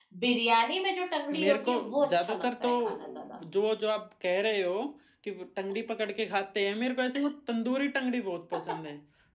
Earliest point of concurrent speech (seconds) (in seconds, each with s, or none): 1.3 s